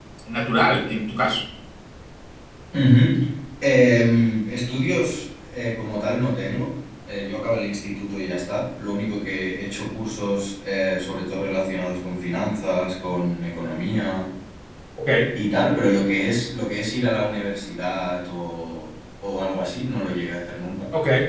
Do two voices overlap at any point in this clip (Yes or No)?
No